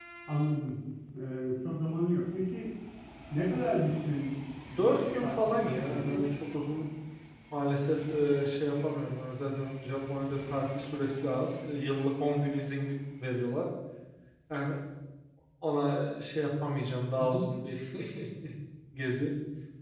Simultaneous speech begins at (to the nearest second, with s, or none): 5 s